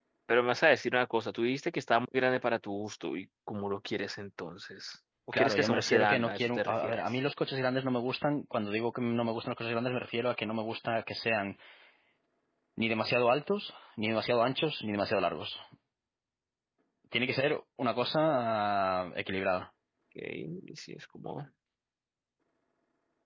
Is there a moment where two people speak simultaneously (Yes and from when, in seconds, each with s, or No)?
Yes, from 5.3 s